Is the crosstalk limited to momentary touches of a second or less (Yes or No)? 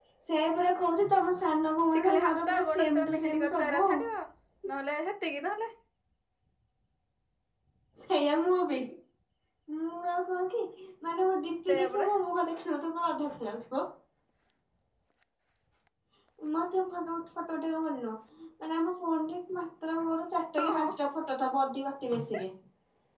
No